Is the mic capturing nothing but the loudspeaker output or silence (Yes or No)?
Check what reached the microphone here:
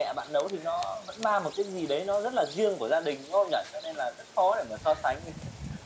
Yes